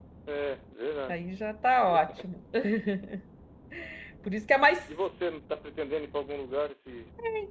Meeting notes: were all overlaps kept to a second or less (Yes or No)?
Yes